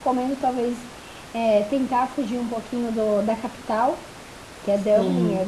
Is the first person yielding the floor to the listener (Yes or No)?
No